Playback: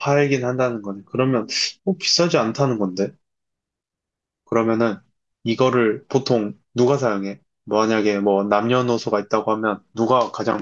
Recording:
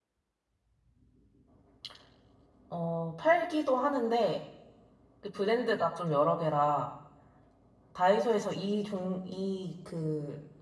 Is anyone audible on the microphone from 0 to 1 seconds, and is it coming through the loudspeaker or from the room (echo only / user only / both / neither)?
neither